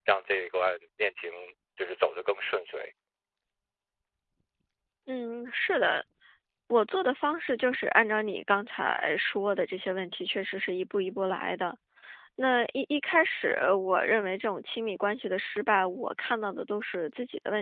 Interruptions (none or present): none